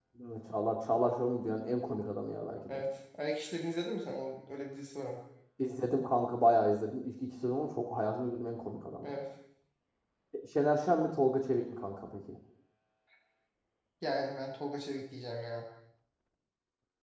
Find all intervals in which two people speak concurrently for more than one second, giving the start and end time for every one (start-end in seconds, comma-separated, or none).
none